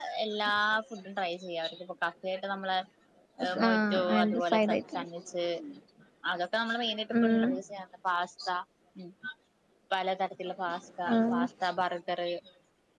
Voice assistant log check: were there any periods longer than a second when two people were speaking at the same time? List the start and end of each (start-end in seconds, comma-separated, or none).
3.7-5.0